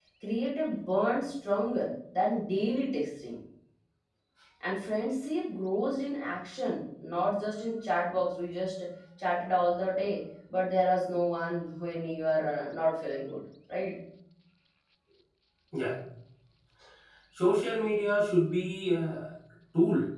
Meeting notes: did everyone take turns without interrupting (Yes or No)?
Yes